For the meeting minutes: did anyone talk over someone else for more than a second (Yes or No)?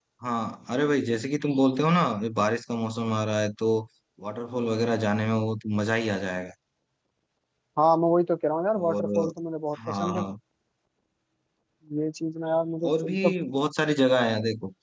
No